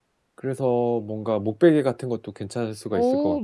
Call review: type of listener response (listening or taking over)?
taking over